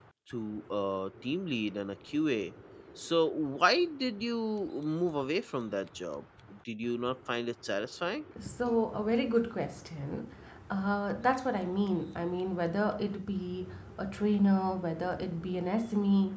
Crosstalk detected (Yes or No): No